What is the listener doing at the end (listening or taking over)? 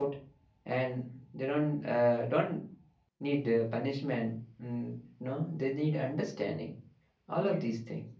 taking over